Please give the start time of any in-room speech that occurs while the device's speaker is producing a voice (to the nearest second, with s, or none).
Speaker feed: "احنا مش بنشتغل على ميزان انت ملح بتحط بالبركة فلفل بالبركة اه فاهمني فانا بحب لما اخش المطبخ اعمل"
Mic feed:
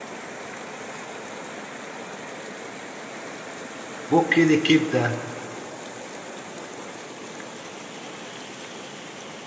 4 s